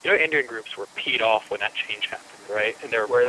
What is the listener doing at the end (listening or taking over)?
listening